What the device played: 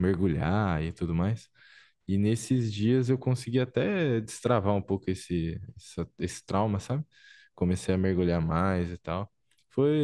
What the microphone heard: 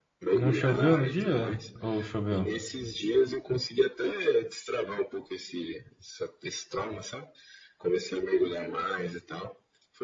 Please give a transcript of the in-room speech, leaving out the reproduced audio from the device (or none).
E não choveu no dia? Ou choveu?